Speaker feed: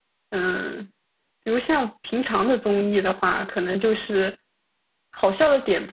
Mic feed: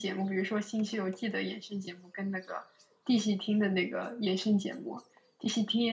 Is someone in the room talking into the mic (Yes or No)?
Yes